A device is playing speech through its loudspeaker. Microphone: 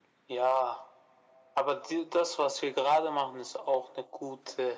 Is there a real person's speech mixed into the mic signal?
No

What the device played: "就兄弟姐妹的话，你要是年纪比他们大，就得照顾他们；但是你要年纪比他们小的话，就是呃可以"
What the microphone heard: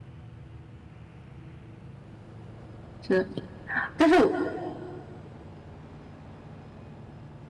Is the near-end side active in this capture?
Yes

